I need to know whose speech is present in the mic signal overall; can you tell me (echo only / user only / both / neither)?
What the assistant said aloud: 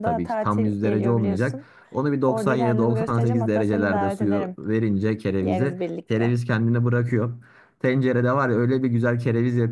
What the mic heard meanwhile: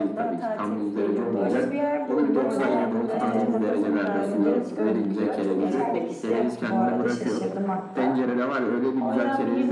both